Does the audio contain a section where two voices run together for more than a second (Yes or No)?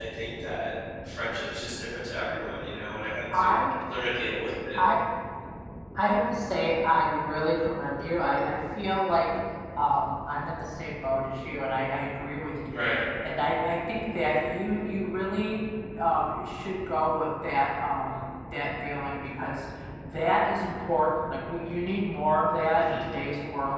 No